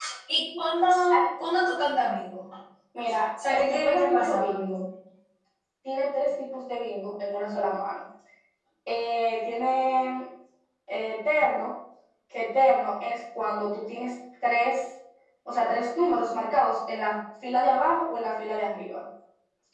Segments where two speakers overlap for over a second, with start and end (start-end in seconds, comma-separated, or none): 3.5-4.8